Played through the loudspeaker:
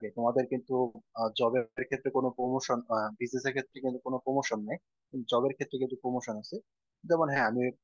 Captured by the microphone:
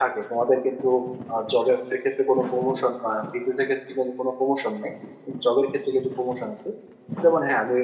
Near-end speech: none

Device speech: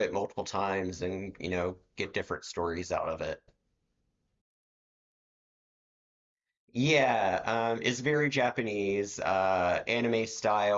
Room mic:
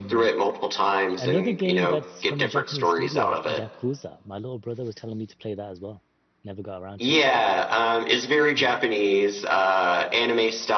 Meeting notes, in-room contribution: present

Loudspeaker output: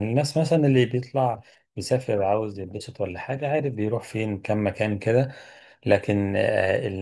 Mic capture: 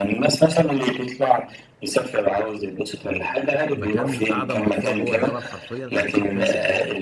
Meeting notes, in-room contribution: present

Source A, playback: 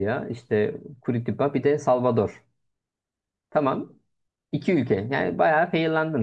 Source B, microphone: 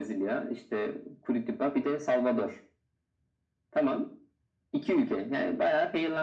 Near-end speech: none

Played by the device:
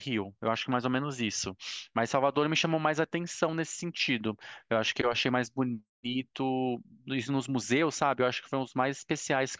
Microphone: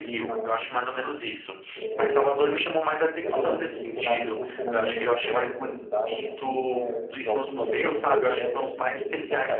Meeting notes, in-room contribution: present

